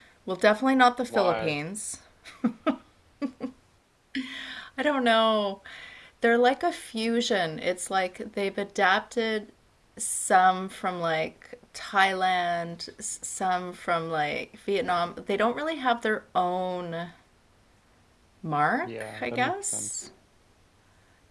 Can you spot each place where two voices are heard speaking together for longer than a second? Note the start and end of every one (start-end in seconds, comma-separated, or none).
18.8-20.1